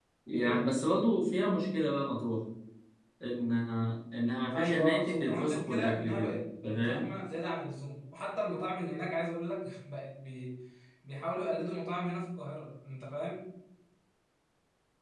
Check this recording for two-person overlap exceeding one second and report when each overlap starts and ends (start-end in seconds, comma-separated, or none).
4.5-7.1